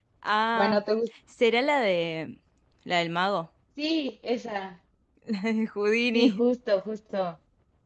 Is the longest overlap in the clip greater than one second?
No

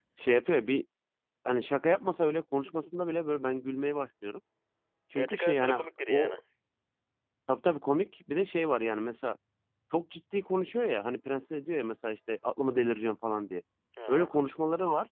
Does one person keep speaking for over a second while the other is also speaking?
Yes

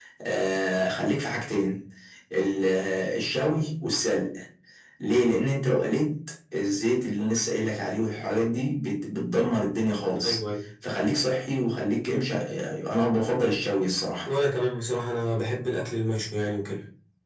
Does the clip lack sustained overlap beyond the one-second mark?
Yes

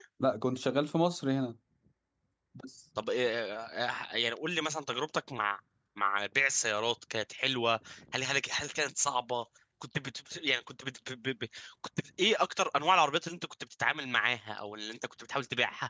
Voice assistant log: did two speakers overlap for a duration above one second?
No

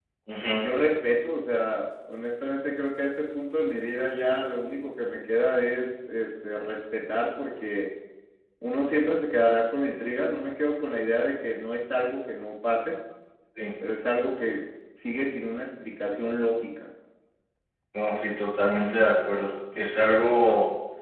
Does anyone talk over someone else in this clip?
No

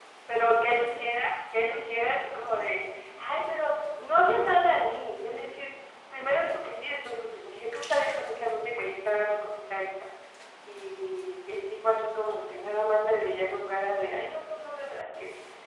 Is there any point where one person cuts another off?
No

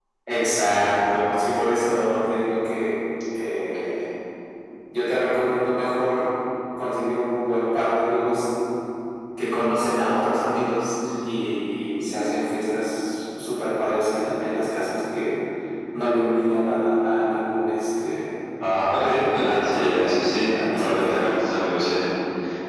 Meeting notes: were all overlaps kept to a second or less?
No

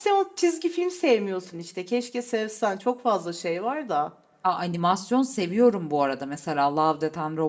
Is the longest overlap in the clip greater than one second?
No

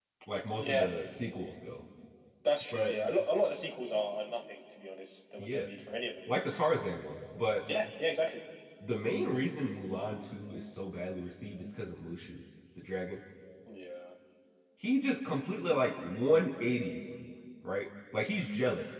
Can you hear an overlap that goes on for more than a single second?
No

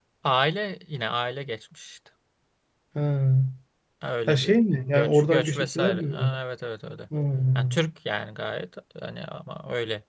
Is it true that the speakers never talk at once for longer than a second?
No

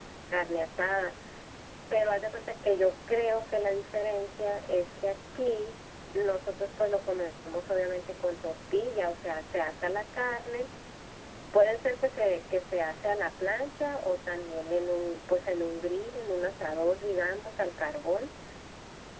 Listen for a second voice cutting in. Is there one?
No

